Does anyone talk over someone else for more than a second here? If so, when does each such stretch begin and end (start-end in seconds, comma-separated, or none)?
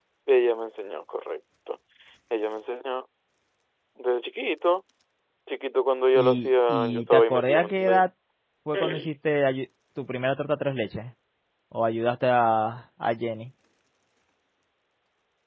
6.2-8.0